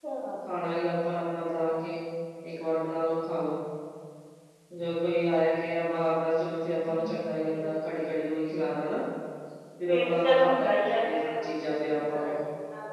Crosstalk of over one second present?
Yes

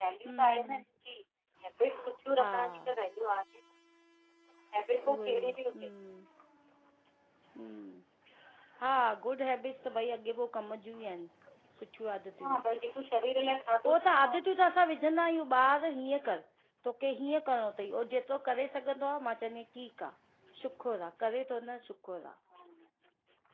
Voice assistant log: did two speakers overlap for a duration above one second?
No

